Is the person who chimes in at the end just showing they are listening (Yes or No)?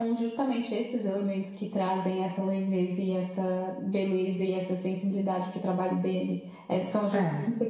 Yes